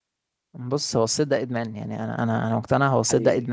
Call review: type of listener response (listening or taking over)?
listening